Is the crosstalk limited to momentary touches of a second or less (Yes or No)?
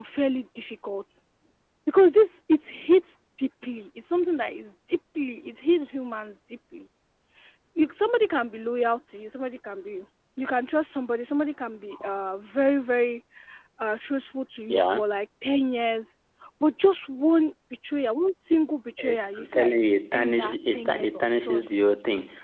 No